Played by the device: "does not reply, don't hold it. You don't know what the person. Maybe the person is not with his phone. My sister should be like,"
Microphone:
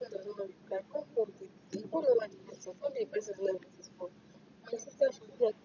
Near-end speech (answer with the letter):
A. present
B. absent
B